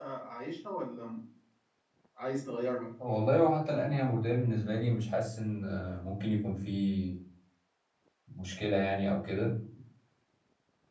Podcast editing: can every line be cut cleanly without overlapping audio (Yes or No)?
Yes